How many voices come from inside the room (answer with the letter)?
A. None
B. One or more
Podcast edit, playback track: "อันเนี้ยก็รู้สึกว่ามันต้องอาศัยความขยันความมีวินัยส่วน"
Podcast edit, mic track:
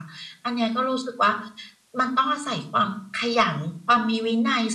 A